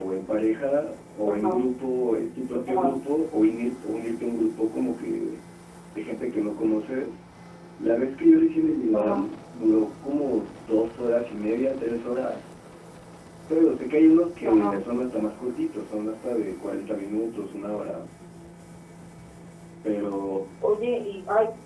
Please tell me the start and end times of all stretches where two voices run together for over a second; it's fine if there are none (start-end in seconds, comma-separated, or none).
none